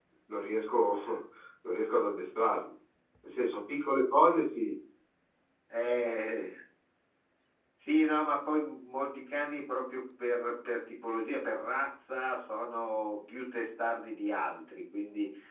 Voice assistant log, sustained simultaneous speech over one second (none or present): none